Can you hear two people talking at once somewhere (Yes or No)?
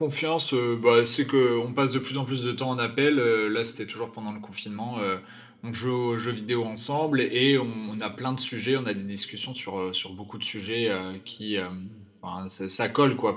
No